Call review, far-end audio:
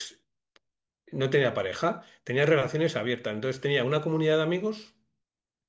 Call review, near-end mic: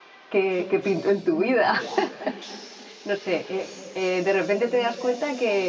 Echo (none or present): none